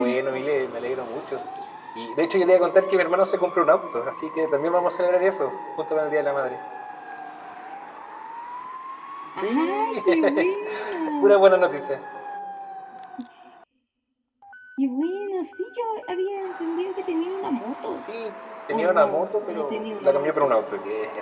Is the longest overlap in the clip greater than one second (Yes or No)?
Yes